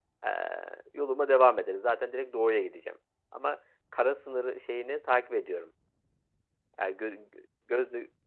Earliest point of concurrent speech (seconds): none

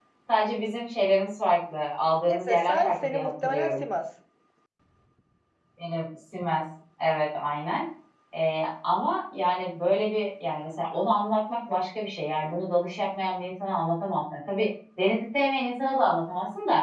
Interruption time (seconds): 2.3 s

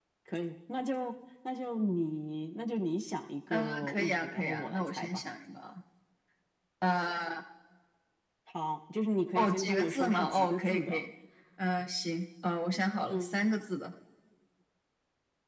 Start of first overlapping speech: 3.5 s

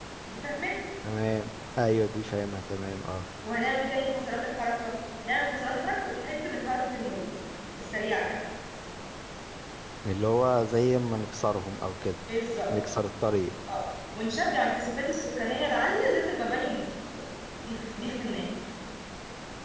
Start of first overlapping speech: none

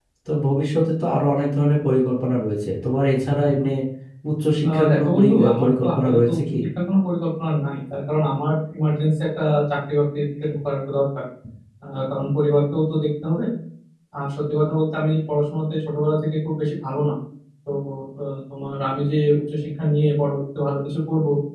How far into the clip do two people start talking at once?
4.7 s

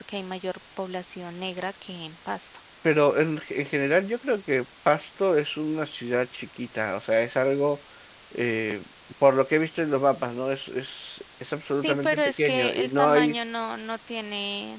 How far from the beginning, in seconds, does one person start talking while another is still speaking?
11.8 s

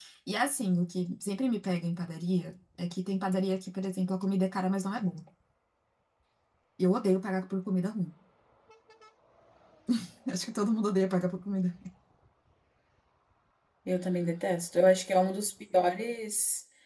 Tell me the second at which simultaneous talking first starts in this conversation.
none

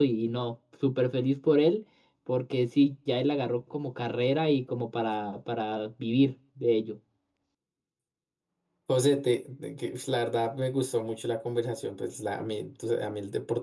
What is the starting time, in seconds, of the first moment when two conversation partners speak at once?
none

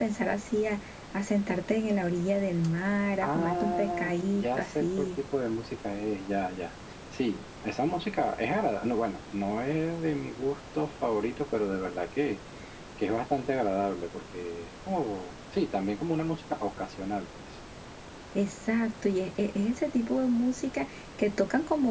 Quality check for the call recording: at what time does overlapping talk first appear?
3.2 s

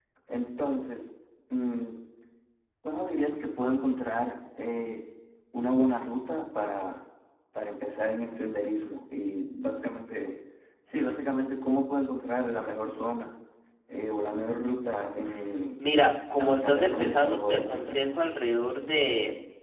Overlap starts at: 16.4 s

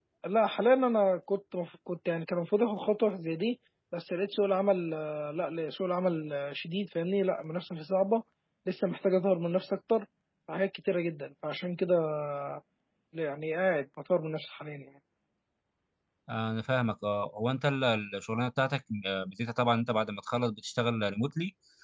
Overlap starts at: none

